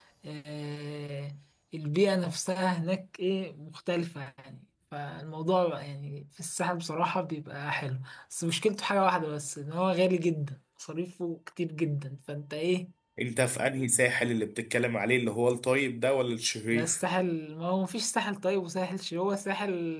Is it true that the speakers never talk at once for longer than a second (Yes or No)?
Yes